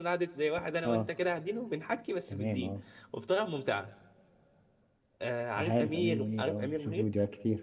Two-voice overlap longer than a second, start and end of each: 5.6-7.1

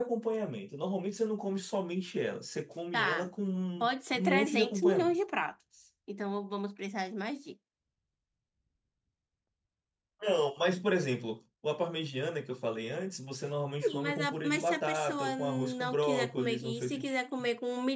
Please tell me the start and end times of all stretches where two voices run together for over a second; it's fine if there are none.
3.8-5.2, 13.9-17.1

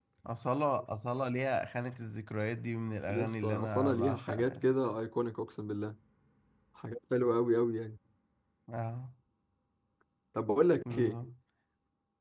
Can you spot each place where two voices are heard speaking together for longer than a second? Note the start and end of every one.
3.1-4.7

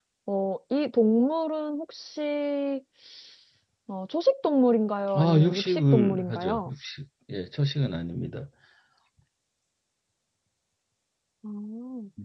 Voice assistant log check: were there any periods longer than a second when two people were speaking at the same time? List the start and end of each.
5.2-6.7

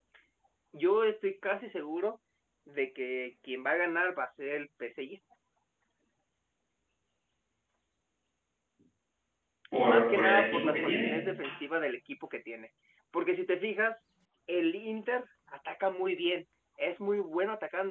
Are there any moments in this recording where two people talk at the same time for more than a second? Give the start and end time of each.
9.8-11.2

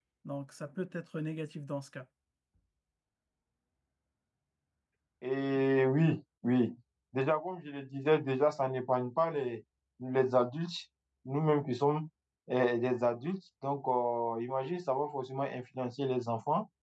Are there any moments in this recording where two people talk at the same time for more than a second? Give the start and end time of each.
none

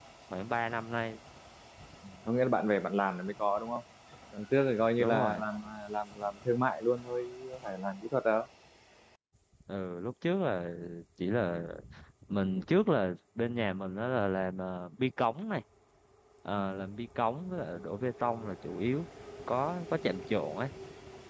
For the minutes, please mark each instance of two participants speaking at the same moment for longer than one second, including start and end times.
none

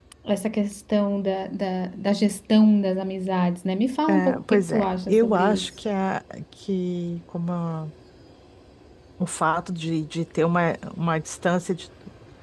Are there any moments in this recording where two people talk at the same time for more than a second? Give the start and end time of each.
4.0-5.7

